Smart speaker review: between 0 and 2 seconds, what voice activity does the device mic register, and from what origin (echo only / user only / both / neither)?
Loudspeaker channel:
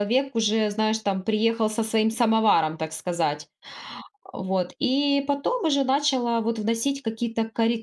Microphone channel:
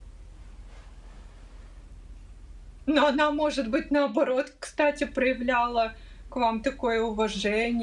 neither